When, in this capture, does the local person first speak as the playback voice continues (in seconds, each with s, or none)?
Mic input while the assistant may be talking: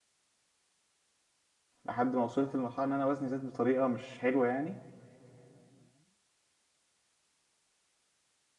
1.8 s